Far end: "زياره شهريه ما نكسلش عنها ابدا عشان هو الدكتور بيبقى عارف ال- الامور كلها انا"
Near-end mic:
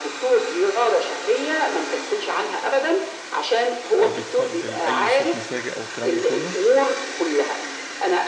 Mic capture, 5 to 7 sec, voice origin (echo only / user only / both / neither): both